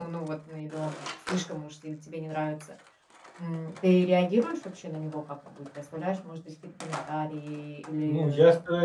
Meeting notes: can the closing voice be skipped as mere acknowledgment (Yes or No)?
No